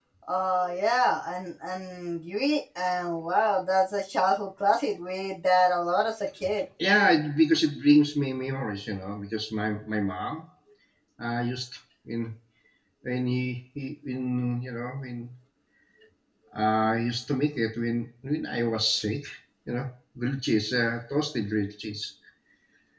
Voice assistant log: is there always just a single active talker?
Yes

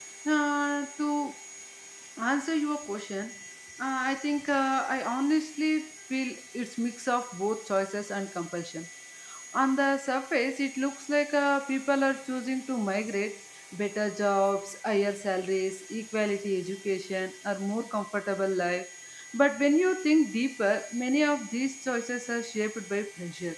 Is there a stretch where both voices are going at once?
No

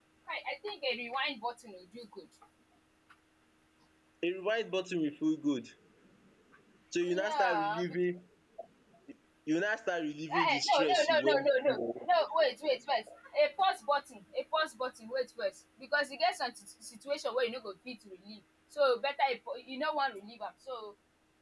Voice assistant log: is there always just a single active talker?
No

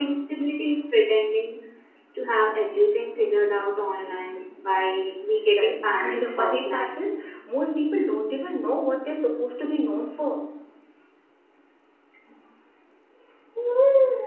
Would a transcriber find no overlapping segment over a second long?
No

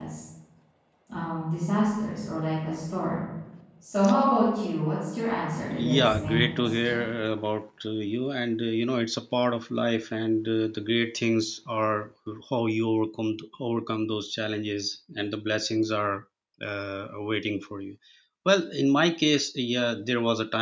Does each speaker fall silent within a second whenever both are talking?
No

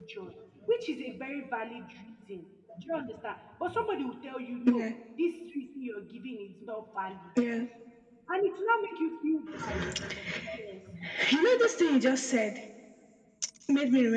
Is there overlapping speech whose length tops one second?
No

